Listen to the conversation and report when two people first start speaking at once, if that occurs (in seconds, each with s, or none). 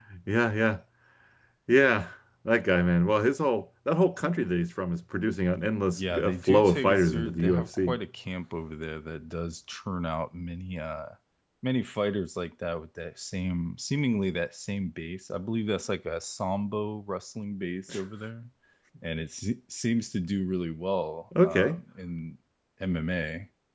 5.9 s